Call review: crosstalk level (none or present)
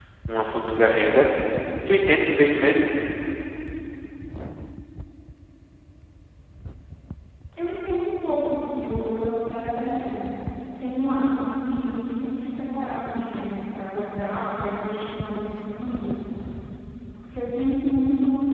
none